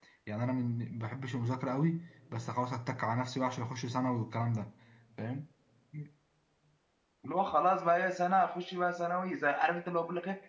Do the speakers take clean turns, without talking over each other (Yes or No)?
Yes